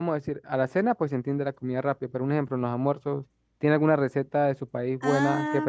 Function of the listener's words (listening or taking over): taking over